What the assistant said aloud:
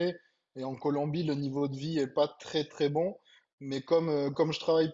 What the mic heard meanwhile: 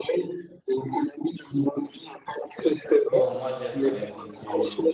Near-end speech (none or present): present